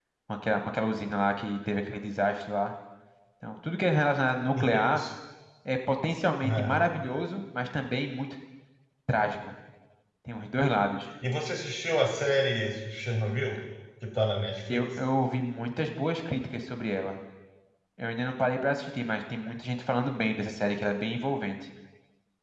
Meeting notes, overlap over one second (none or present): none